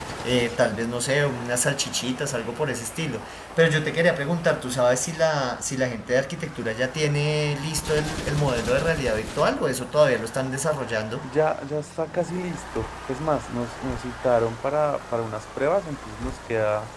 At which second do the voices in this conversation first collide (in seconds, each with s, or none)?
none